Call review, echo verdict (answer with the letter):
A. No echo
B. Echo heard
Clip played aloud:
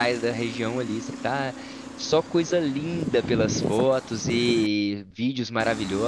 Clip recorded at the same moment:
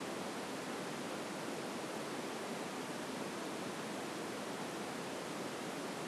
A